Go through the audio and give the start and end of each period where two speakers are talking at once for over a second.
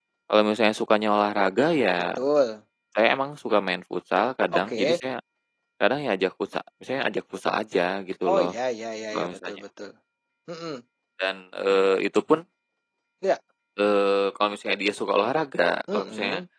none

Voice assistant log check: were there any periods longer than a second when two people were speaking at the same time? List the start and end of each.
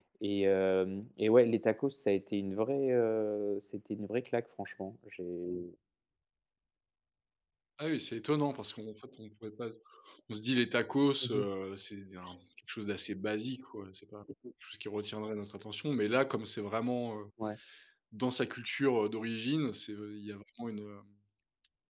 none

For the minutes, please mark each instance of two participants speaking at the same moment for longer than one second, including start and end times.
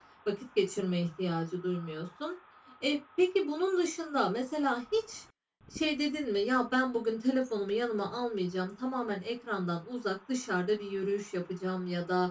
none

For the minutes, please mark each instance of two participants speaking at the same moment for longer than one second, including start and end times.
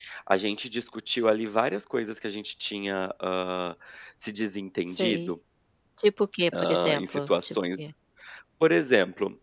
6.6-7.9

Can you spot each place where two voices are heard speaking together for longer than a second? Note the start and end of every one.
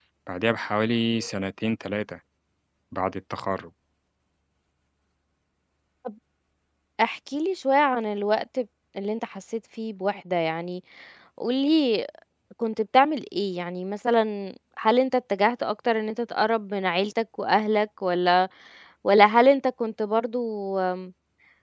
none

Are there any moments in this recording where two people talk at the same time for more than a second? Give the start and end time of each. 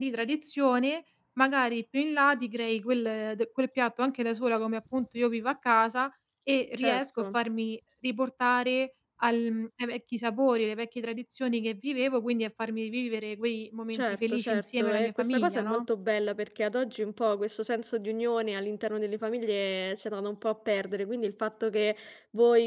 13.9-15.8

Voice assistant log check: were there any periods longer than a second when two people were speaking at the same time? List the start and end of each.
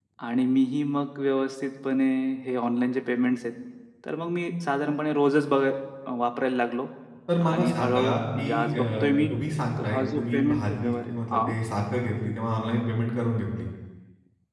7.4-9.1, 9.8-11.6

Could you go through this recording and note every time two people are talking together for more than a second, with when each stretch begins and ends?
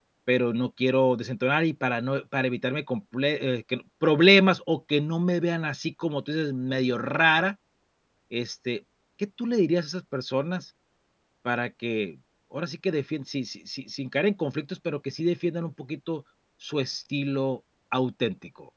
none

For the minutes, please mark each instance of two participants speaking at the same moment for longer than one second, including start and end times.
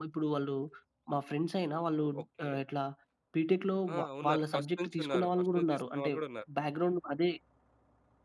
3.9-6.1

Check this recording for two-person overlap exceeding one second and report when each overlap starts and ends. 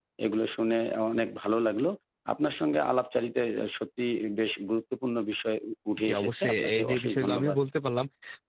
6.0-7.6

